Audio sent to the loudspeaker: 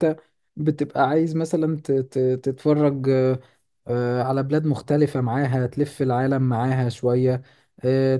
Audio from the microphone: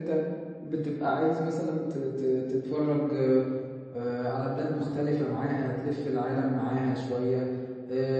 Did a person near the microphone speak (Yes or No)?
No